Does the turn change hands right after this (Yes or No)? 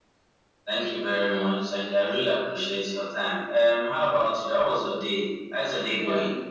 Yes